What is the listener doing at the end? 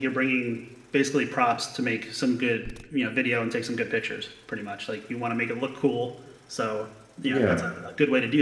listening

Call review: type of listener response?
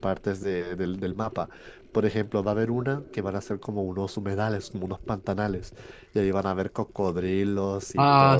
taking over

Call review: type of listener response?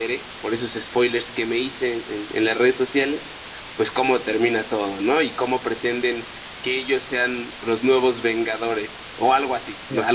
taking over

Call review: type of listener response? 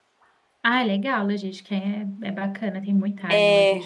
taking over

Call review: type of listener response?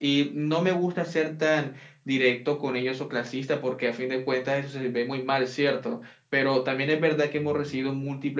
listening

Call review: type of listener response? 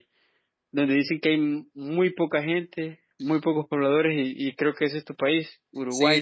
taking over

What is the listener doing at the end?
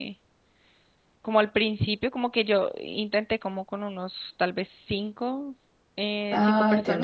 listening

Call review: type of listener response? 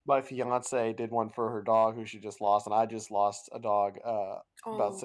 listening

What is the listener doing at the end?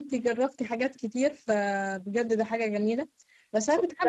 listening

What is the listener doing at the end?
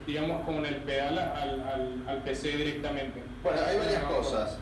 taking over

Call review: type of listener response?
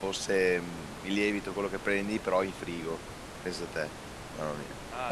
taking over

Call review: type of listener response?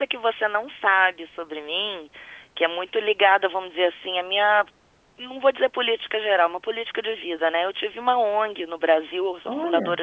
listening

